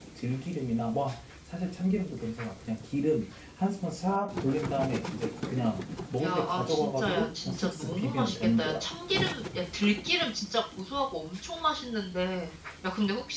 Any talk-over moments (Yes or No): Yes